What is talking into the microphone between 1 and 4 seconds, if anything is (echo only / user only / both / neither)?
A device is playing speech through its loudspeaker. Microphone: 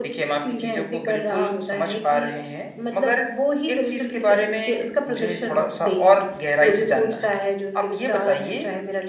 echo only